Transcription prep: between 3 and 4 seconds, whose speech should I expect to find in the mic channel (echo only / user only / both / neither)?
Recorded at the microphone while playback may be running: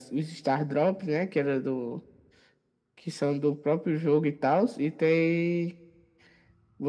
echo only